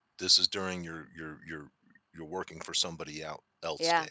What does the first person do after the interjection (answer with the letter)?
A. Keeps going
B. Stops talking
B